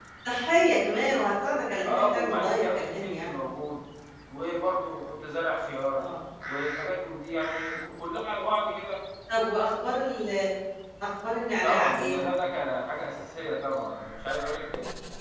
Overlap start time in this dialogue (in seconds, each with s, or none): 1.9 s